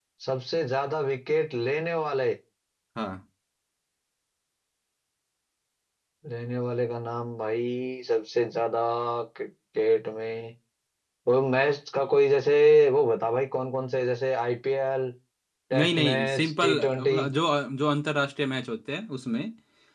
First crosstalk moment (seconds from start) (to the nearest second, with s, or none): 16 s